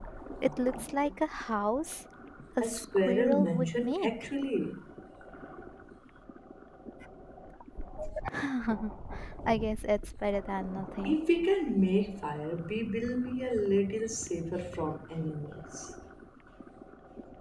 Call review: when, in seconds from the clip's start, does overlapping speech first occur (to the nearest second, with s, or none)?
3 s